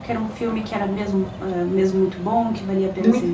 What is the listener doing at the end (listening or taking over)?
listening